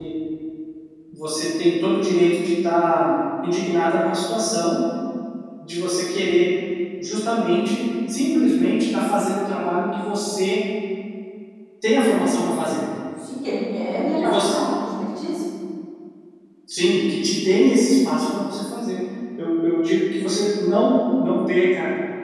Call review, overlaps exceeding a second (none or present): none